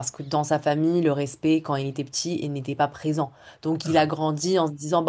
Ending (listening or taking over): listening